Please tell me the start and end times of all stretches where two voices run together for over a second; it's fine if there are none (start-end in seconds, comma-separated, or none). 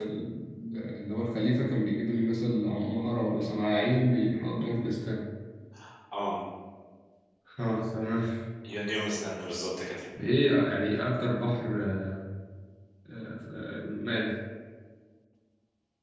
none